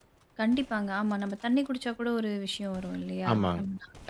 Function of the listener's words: taking over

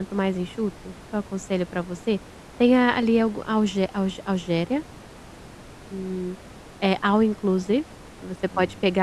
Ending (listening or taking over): listening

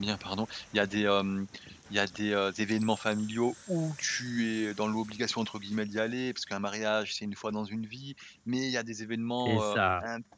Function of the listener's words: listening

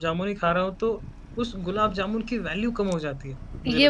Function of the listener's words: taking over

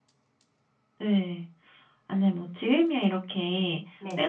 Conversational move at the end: listening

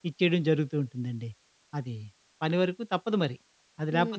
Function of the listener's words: taking over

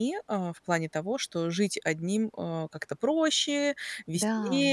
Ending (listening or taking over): listening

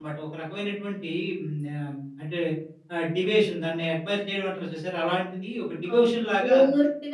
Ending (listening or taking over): taking over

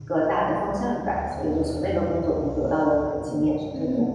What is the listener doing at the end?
taking over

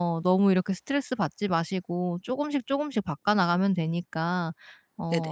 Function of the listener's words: listening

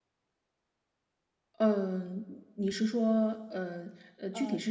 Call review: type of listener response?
taking over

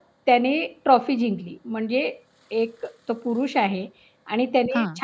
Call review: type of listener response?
listening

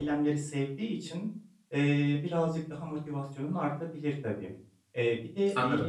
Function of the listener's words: listening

